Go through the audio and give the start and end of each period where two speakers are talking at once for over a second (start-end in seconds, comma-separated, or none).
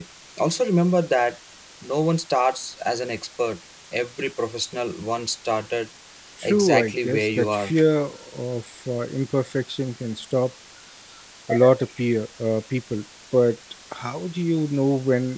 6.4-7.7